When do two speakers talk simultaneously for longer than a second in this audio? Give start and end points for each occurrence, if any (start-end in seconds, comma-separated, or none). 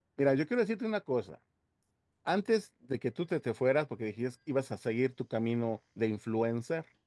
none